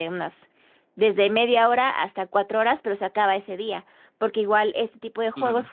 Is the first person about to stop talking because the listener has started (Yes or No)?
No